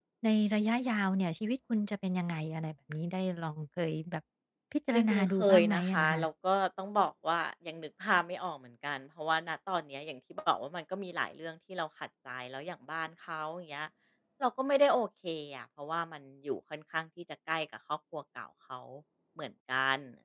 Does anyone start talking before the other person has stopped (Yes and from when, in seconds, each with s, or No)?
Yes, from 4.9 s